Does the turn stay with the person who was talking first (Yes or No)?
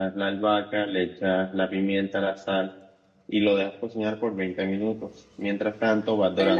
No